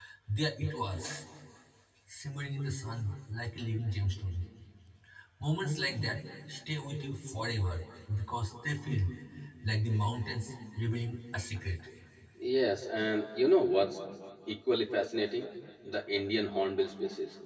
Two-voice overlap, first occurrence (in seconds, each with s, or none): none